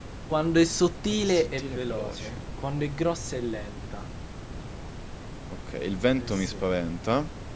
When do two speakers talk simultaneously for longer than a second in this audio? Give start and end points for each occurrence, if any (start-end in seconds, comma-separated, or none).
1.0-2.4